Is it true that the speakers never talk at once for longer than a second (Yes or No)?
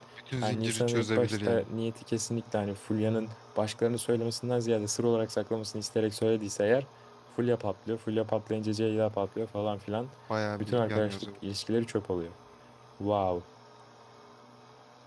No